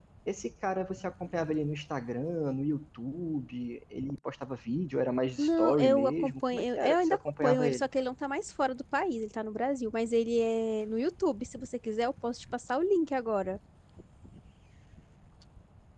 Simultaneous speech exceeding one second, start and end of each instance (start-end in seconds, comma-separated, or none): 5.4-7.9